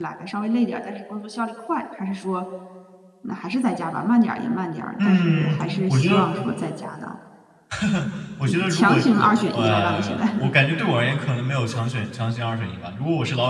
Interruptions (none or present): present